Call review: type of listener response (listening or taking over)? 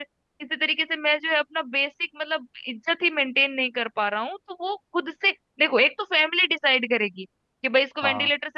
listening